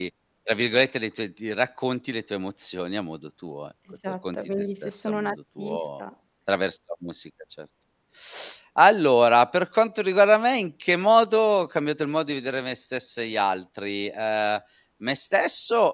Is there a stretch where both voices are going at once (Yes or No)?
Yes